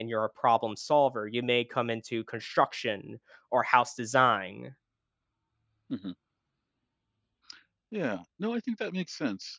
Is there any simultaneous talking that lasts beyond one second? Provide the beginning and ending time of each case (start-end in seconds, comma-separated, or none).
none